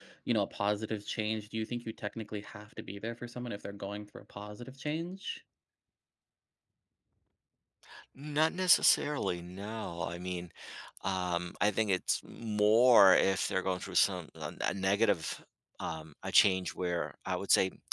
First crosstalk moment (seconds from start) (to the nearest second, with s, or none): none